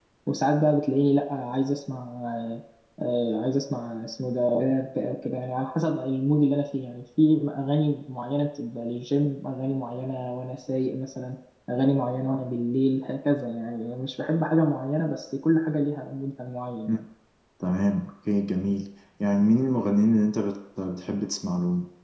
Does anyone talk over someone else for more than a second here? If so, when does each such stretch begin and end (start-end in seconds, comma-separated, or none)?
none